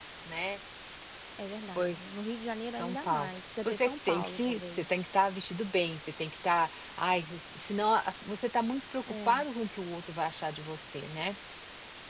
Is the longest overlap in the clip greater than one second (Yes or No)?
Yes